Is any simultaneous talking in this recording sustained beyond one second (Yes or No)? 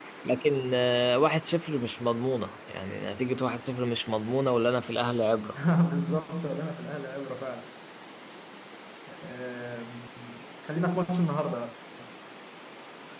No